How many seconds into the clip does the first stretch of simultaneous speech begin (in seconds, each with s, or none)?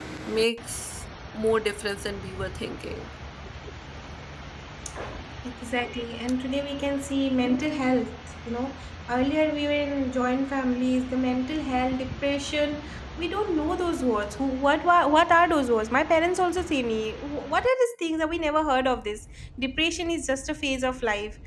none